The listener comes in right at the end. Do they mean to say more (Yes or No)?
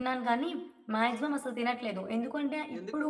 No